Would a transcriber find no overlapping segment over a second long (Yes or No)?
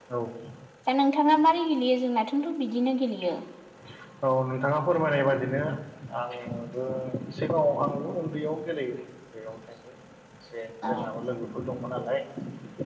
Yes